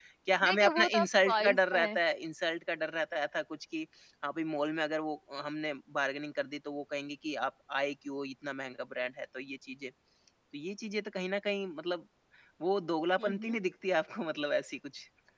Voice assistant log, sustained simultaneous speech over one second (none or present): present